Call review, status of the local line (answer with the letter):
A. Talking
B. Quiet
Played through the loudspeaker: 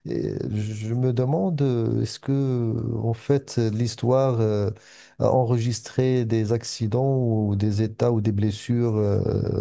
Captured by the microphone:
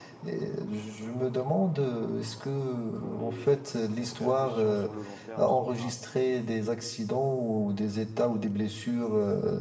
A